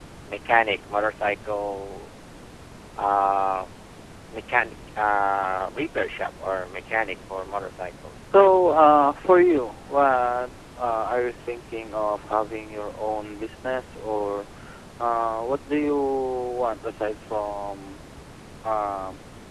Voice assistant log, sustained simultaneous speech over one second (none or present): none